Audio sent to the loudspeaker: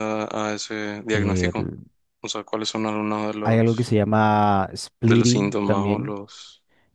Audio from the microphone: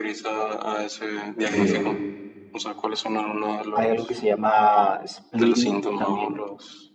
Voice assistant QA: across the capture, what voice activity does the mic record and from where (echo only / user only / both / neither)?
both